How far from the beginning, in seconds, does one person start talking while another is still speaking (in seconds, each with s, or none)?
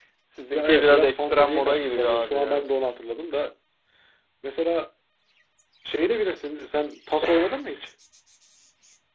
0.5 s